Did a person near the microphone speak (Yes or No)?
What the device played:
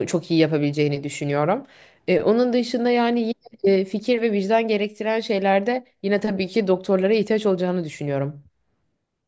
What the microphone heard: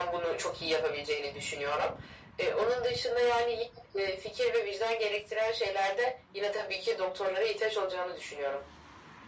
No